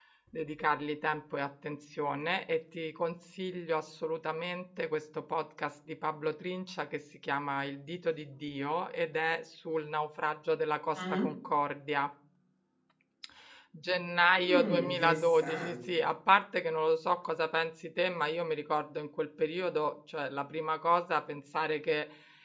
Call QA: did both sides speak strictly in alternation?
No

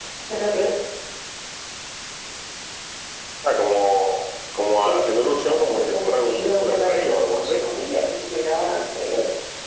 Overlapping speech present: Yes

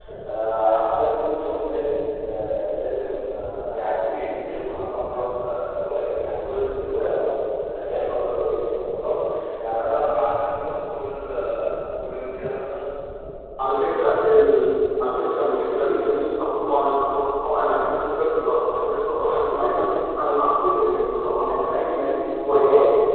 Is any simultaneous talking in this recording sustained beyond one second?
No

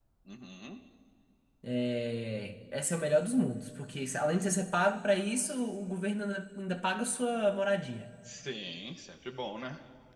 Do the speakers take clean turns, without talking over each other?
Yes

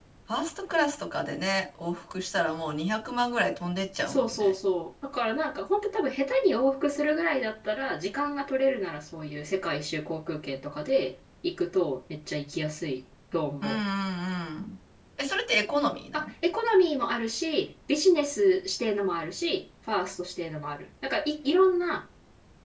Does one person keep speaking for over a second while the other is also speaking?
No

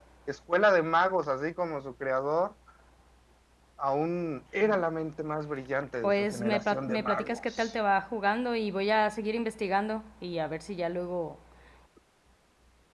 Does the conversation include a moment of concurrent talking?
Yes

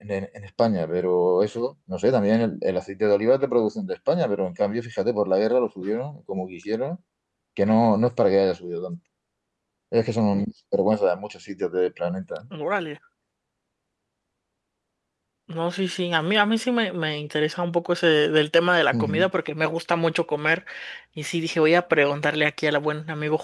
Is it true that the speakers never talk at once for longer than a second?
Yes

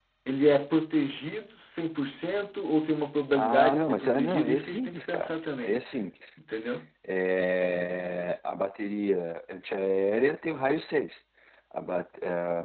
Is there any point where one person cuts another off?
Yes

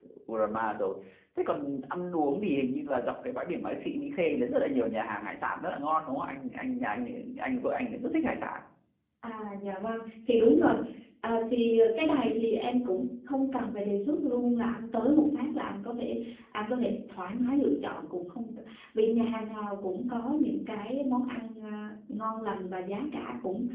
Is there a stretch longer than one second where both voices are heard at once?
No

